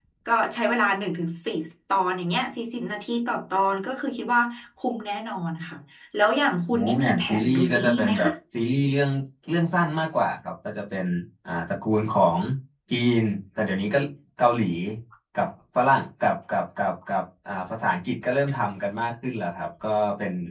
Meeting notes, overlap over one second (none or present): present